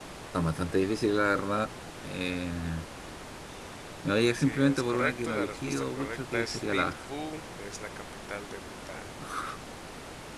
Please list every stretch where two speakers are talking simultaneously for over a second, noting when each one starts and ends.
4.4-7.0

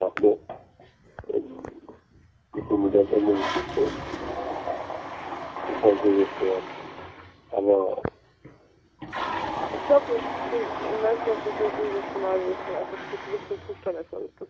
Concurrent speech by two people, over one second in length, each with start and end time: none

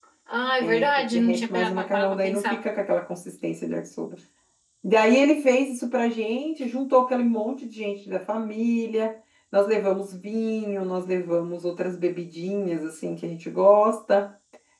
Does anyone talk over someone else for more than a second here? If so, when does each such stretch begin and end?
0.6-2.7

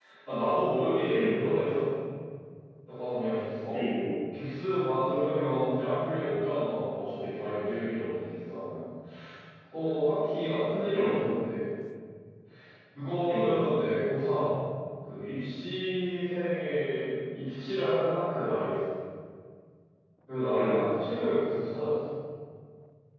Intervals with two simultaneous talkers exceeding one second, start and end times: none

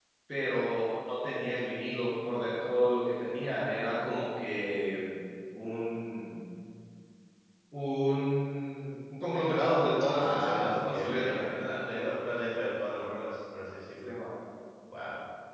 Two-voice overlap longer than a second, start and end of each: 10.1-11.4

